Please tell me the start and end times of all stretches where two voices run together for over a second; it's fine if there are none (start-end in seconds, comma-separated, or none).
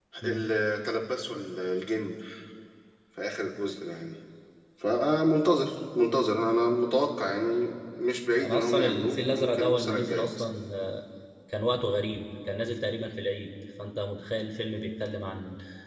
8.4-10.5